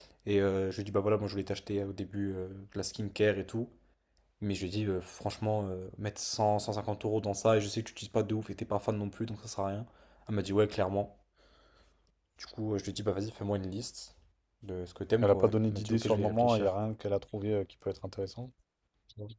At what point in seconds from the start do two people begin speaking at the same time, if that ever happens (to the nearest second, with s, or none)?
15 s